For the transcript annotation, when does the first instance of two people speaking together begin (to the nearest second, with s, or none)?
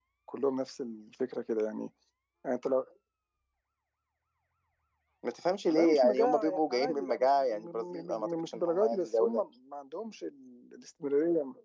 6 s